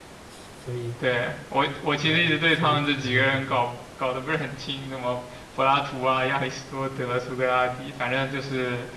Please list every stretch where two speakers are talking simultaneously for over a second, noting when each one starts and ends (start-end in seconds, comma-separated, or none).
2.0-3.6